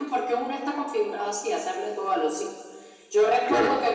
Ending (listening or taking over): listening